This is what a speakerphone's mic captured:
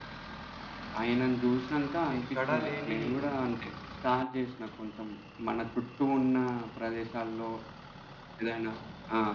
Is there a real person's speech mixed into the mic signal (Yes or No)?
Yes